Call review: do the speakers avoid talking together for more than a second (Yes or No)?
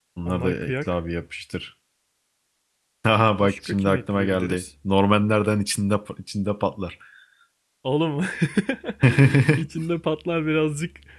No